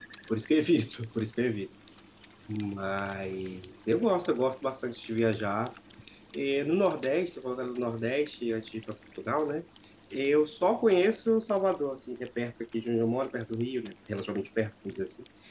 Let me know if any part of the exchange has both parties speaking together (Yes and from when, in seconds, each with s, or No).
No